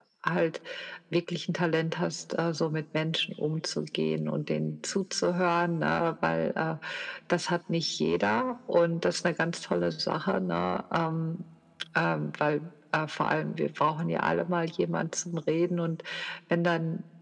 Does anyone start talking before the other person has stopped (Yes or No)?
No